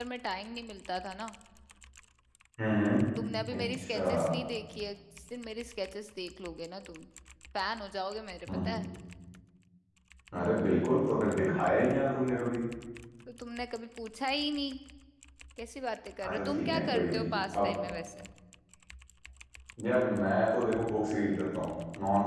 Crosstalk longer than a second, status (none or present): present